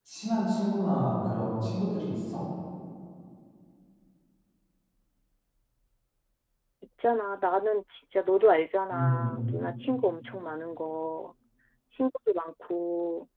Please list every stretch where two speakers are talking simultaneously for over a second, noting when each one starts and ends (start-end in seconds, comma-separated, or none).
none